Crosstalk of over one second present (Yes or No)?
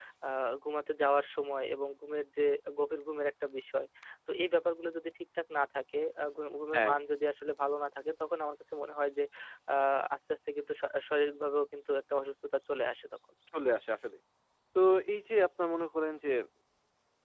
No